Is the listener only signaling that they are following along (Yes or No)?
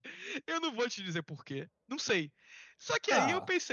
Yes